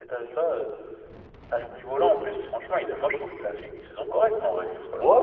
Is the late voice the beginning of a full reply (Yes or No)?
Yes